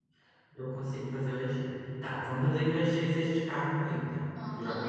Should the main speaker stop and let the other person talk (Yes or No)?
Yes